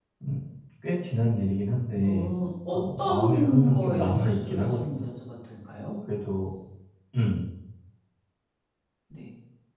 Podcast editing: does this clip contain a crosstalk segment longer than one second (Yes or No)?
Yes